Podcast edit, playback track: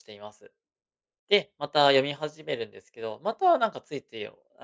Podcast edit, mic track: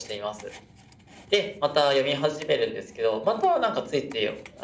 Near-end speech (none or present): none